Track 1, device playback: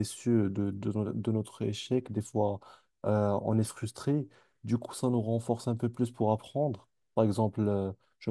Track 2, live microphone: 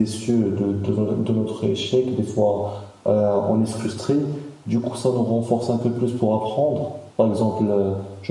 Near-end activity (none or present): none